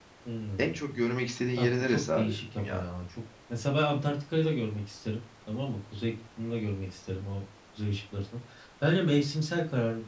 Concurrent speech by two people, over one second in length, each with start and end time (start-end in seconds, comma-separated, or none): 1.6-2.8